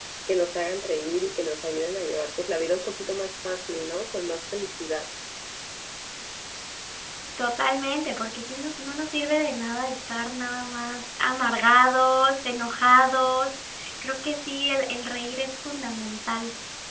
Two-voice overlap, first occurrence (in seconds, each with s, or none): none